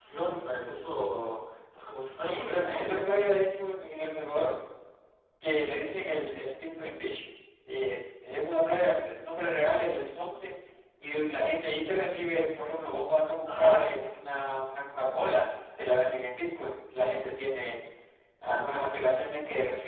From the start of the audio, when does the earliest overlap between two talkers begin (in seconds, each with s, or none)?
2.1 s